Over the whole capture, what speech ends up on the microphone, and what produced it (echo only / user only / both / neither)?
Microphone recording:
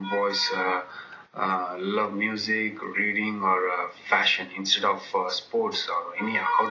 echo only